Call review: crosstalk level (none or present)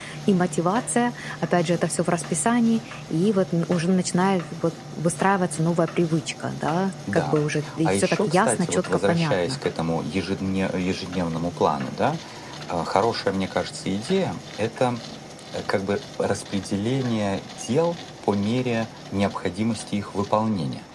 present